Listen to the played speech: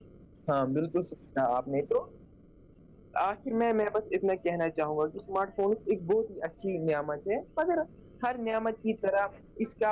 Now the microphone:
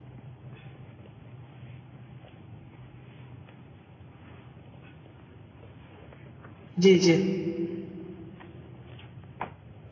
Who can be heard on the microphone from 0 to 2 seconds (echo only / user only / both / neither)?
neither